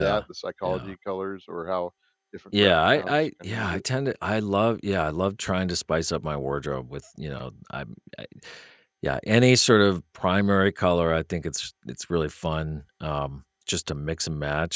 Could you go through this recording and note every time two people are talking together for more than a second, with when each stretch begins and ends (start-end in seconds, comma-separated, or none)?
2.6-3.8